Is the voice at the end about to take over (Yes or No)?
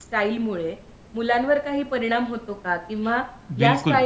No